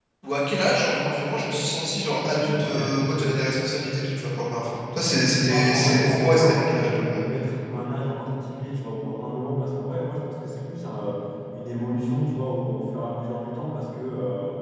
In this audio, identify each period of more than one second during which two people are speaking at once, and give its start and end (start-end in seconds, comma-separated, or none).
5.4-7.2